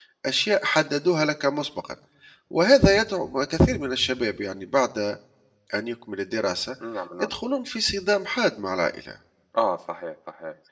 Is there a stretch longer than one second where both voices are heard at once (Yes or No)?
No